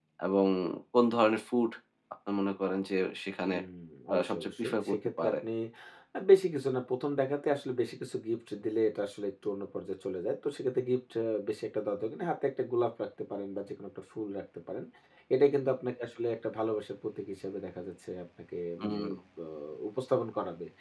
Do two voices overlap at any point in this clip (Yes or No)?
Yes